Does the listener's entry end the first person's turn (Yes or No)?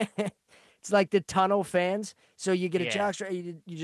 No